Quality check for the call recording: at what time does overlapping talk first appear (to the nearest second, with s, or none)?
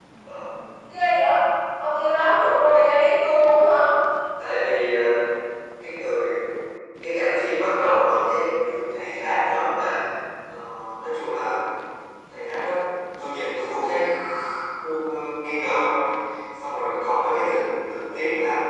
none